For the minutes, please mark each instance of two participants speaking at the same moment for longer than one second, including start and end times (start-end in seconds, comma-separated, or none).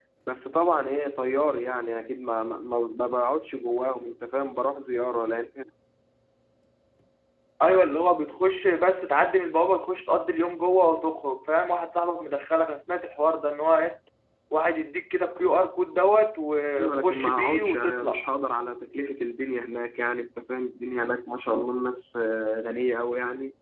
16.8-18.2